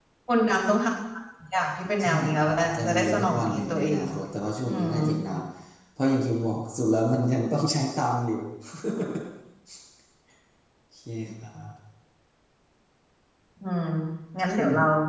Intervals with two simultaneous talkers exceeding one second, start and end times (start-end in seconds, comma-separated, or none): 2.0-4.0